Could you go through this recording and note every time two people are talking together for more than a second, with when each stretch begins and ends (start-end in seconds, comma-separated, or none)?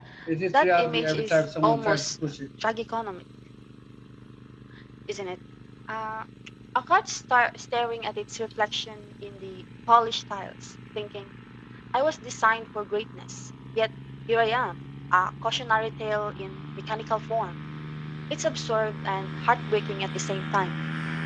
0.5-2.1